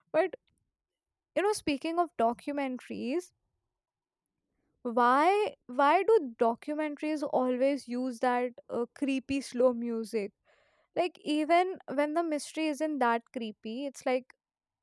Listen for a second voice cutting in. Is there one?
No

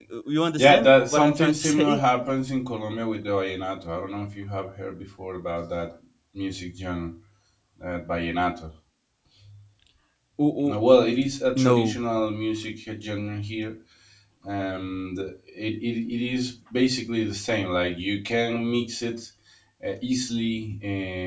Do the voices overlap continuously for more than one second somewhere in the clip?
Yes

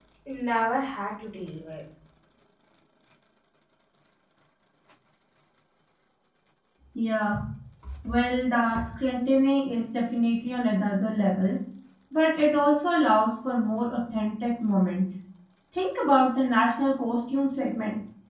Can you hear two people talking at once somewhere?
No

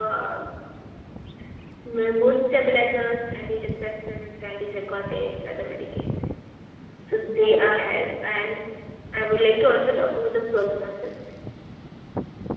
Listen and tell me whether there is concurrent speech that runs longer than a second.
No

